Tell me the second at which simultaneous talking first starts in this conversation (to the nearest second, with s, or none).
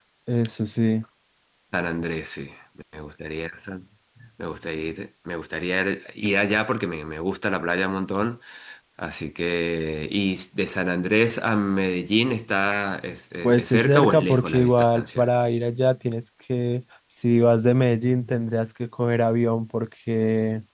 13 s